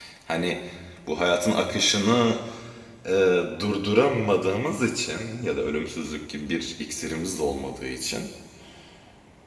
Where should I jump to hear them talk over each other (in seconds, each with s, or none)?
none